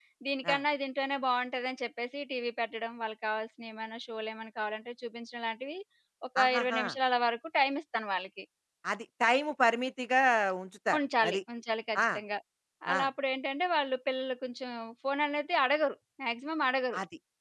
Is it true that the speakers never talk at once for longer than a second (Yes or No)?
Yes